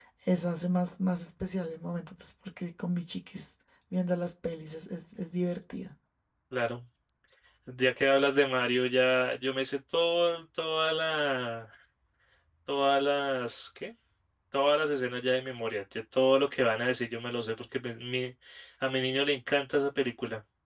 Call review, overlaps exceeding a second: none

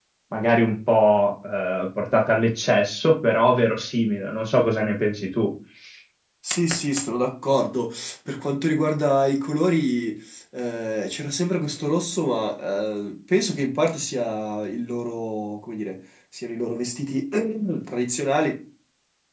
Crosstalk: none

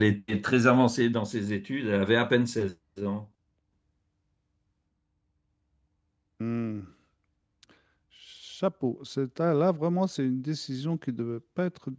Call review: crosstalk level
none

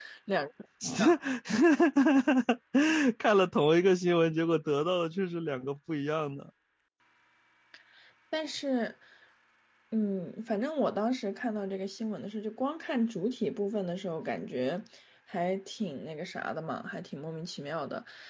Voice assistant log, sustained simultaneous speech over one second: none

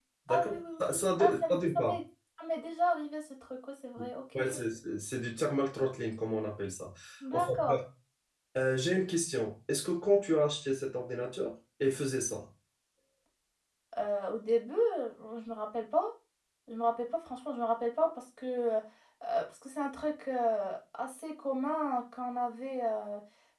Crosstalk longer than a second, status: present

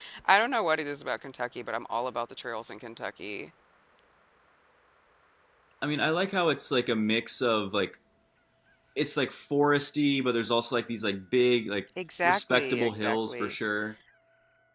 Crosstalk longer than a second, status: present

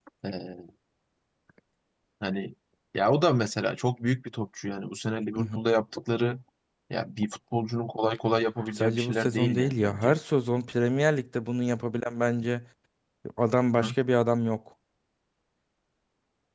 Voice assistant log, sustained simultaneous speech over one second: present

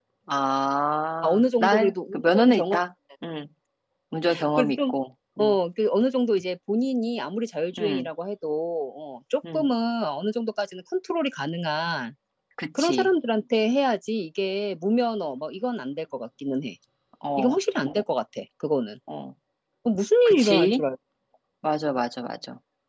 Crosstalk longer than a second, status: present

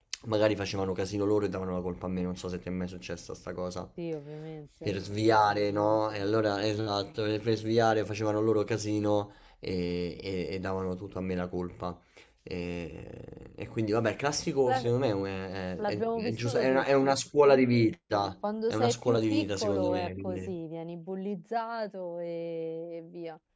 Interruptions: present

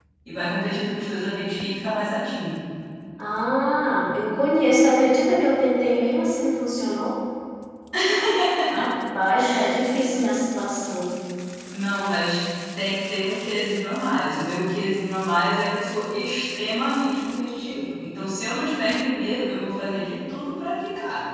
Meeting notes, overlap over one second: none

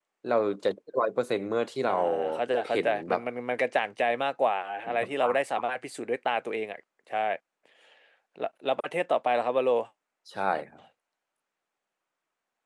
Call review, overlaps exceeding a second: none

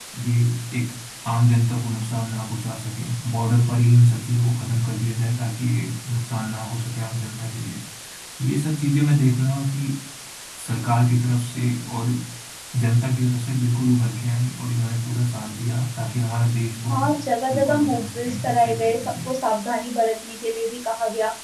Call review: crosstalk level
present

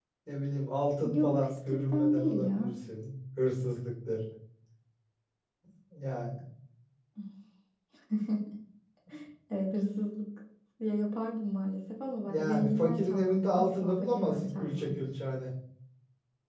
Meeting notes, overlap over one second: present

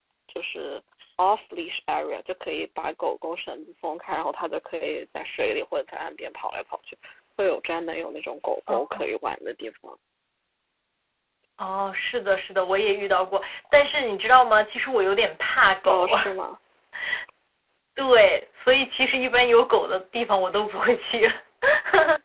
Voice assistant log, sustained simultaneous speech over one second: none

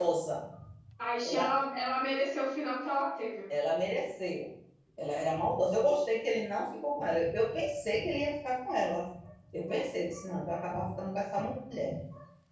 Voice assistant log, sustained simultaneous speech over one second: none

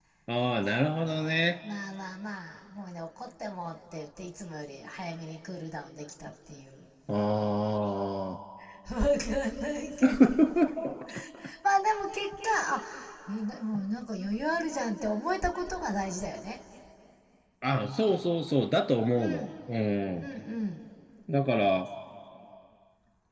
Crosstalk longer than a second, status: none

